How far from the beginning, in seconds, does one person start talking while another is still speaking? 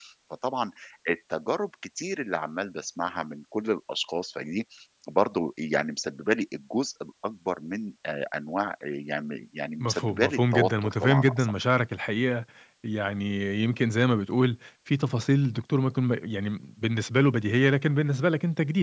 9.8 s

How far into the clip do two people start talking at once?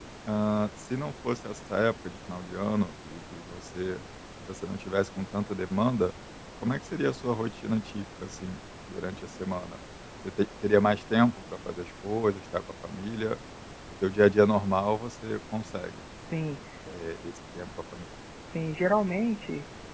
none

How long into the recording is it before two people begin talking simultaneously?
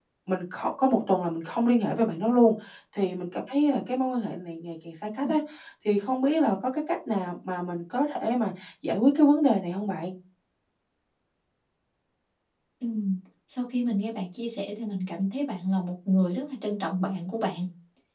none

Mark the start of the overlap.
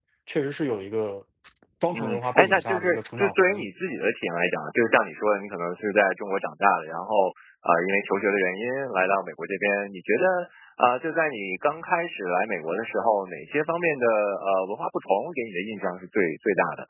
1.9 s

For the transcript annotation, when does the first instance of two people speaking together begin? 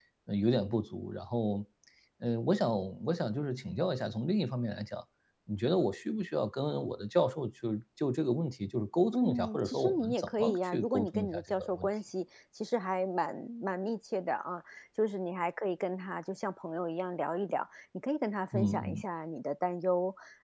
9.1 s

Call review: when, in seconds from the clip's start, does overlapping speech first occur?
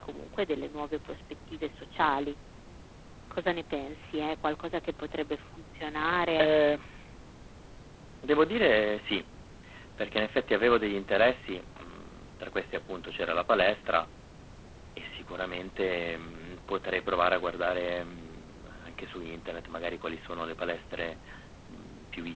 none

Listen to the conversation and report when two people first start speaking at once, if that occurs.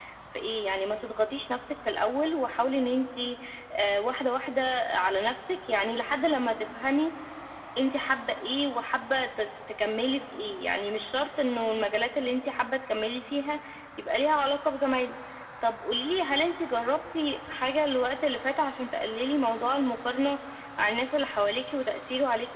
none

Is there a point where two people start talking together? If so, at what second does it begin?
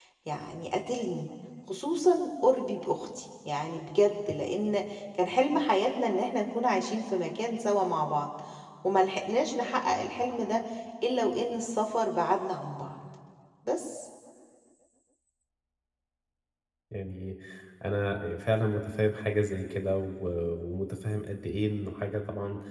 none

